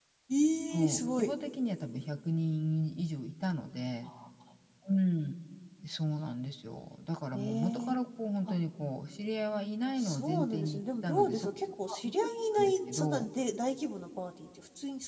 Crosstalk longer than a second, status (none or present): present